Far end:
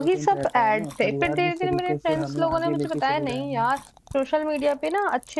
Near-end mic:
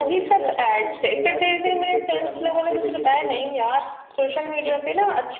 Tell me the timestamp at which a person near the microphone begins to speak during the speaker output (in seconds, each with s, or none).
none